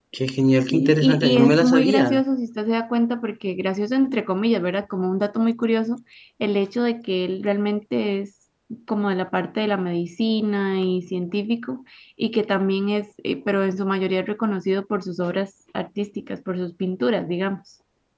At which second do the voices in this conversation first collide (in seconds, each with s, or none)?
0.7 s